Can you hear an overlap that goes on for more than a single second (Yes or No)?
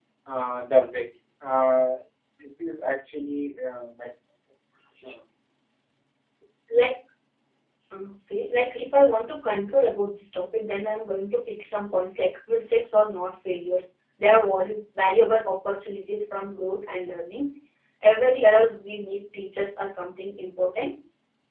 No